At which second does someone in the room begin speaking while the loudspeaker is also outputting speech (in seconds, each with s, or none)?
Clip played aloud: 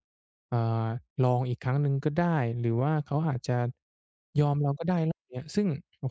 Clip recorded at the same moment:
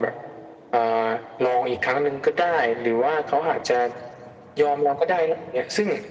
none